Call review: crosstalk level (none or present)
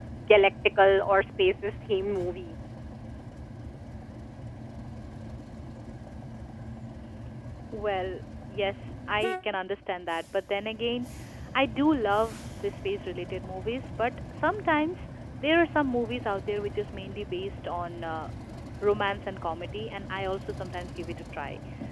none